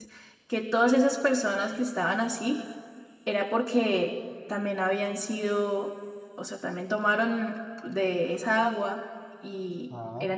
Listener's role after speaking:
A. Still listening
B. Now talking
A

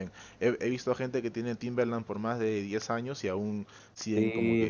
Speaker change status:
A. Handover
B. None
A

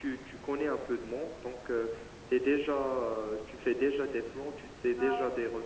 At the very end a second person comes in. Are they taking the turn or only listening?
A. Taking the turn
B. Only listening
B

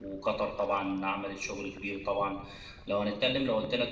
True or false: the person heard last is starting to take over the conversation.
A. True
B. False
B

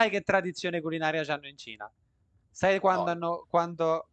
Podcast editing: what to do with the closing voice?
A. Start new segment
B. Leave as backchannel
B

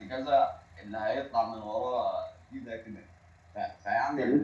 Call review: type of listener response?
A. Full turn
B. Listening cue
A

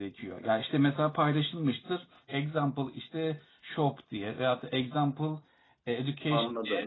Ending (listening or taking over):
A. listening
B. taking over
A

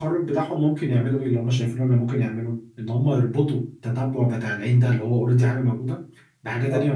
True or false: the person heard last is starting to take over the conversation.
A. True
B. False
B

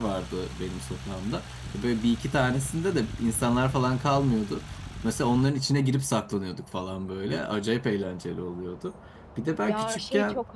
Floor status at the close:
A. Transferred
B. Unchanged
A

